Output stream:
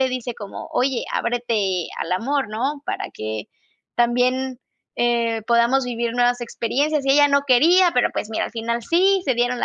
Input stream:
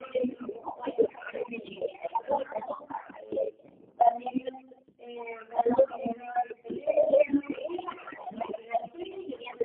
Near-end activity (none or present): none